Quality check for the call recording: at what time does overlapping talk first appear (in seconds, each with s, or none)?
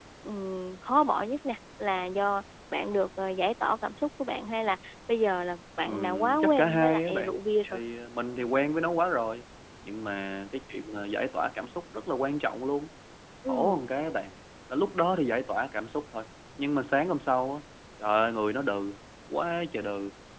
5.8 s